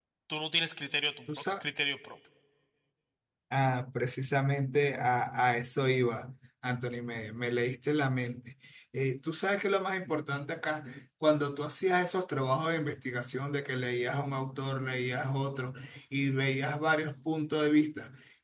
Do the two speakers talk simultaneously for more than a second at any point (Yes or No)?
No